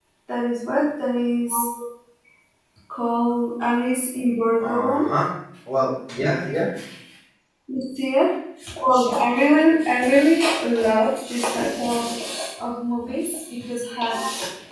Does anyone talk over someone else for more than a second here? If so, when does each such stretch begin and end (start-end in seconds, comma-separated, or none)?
none